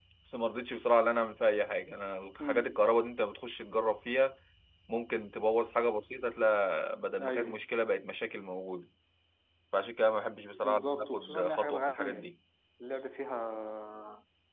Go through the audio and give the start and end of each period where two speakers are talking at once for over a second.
10.6-12.3

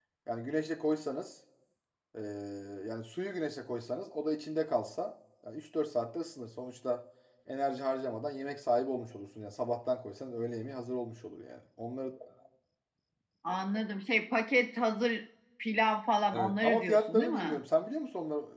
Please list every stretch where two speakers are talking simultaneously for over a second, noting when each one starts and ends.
16.3-17.6

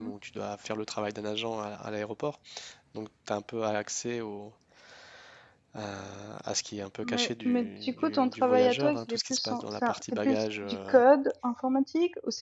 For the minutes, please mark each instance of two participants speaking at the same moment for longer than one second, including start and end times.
7.0-11.0

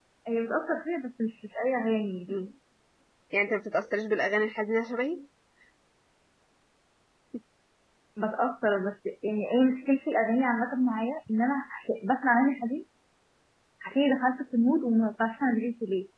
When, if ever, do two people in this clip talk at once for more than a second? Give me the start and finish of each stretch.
none

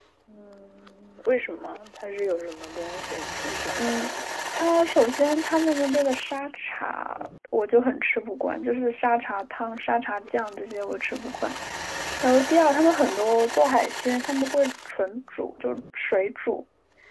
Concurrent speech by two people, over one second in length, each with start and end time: none

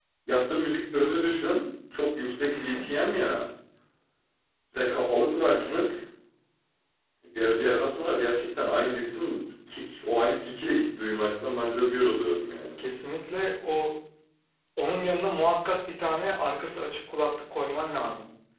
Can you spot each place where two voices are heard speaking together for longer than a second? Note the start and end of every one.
none

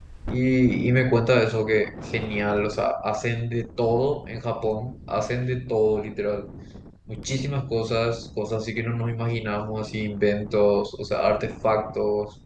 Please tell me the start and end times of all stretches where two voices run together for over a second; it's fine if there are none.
none

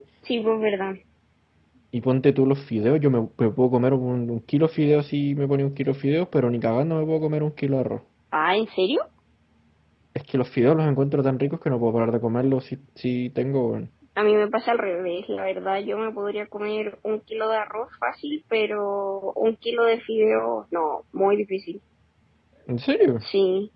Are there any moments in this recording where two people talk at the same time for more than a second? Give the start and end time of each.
none

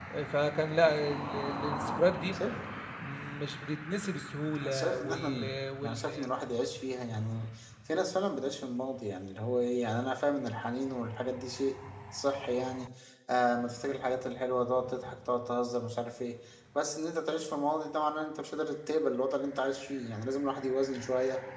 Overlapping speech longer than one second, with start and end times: 4.6-6.3

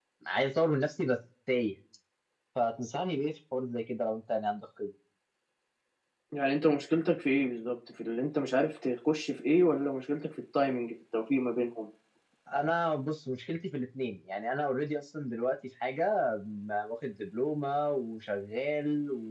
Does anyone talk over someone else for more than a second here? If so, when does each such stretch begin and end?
none

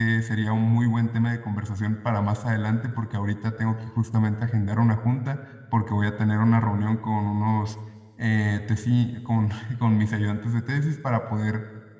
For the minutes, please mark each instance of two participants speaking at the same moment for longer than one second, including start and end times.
none

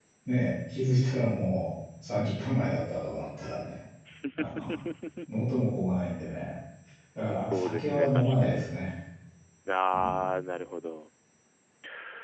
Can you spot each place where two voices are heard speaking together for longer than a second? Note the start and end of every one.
7.4-8.8

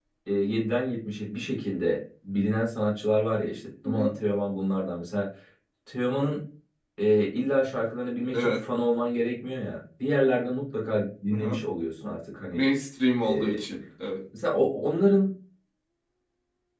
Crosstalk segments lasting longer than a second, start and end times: none

